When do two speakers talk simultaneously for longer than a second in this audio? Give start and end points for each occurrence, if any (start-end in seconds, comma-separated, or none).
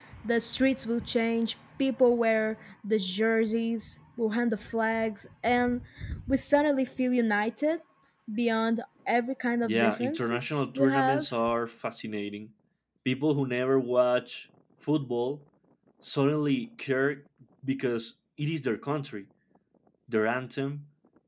9.6-11.3